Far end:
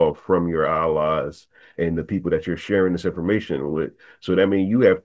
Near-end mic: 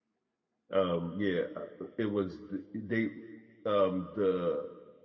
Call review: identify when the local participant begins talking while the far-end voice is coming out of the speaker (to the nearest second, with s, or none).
1 s